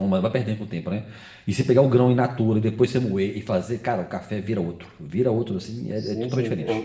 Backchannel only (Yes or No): No